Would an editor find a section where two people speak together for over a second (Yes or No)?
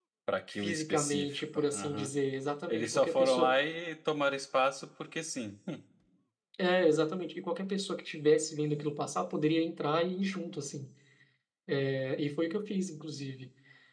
Yes